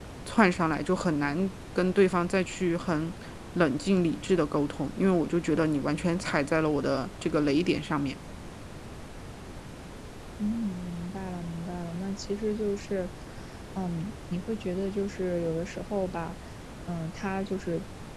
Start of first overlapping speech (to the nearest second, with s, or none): none